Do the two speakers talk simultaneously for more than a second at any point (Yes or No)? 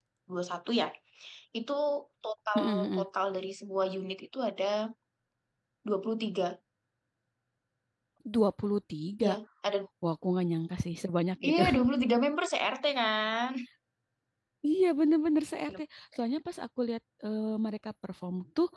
No